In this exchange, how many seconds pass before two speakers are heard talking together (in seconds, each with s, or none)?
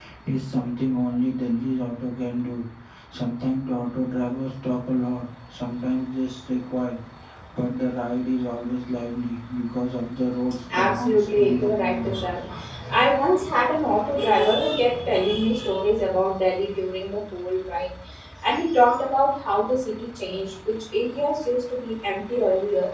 10.7 s